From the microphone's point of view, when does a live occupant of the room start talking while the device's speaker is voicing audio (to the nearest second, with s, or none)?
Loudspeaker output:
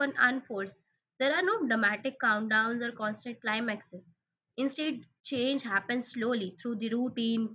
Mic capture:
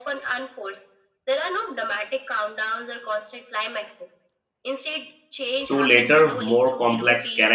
6 s